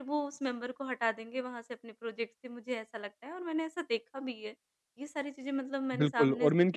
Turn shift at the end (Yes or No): Yes